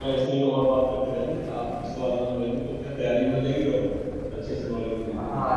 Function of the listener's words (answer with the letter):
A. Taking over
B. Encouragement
A